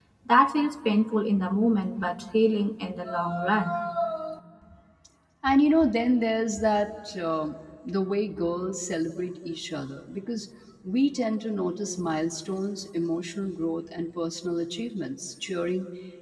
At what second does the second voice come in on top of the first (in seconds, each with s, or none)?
none